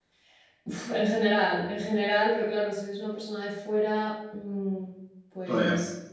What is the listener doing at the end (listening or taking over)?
listening